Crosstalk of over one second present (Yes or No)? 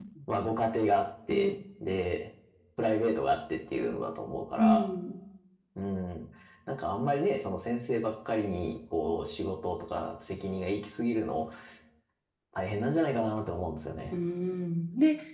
No